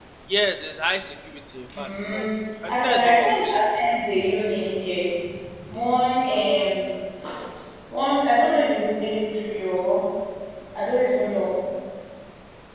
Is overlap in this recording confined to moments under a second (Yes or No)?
No